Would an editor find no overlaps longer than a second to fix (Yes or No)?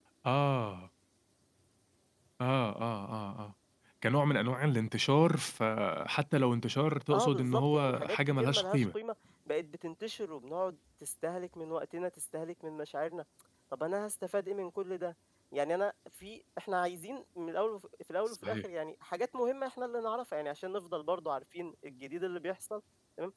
No